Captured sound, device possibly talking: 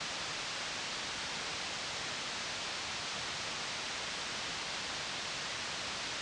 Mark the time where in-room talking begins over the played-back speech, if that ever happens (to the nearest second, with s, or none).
none